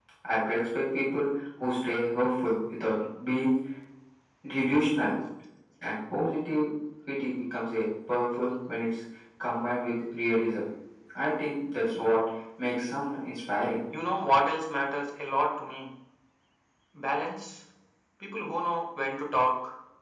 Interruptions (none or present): none